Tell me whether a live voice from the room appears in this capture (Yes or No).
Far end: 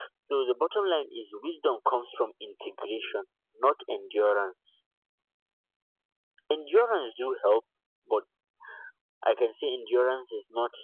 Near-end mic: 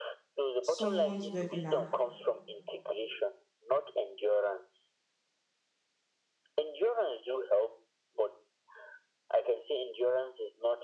Yes